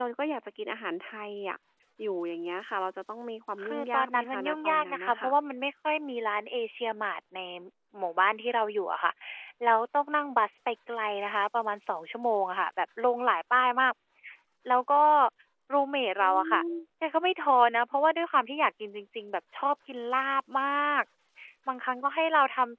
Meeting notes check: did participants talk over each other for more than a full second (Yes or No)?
Yes